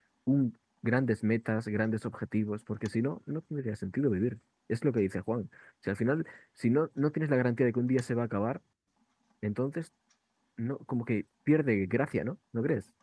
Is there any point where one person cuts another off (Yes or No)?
No